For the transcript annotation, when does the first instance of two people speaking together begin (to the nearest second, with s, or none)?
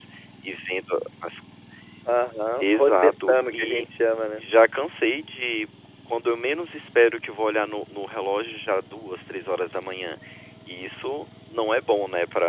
3 s